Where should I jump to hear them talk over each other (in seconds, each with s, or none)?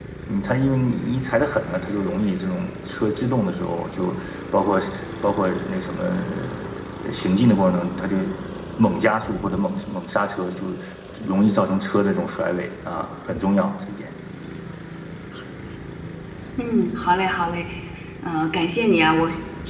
none